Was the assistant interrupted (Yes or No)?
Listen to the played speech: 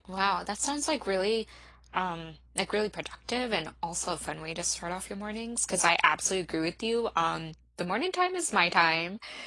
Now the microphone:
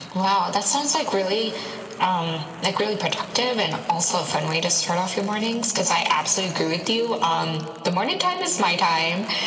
No